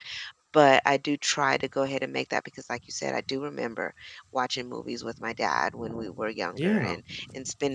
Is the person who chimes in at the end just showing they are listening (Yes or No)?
Yes